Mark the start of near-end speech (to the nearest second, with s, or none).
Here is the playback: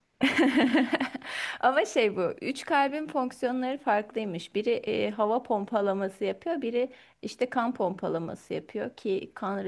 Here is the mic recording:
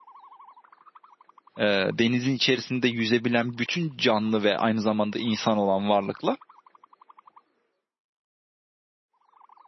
2 s